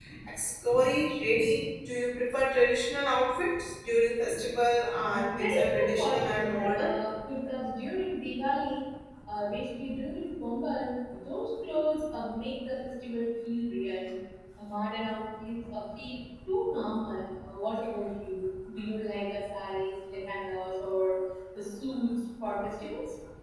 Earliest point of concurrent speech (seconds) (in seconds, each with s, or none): 5.1 s